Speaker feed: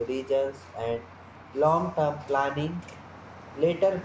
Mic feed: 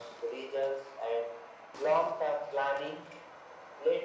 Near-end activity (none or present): none